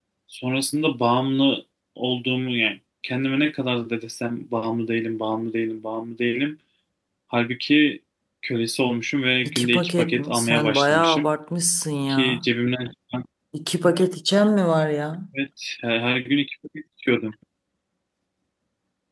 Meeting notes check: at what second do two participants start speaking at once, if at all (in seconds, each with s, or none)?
9.4 s